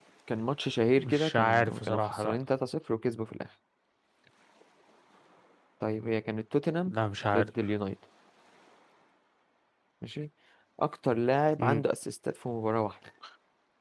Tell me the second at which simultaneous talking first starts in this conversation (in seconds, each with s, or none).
1.0 s